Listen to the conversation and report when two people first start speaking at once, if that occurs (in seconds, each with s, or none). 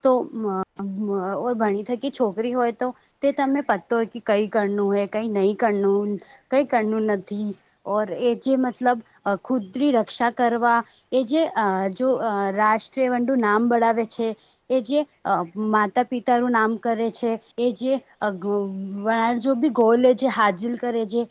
none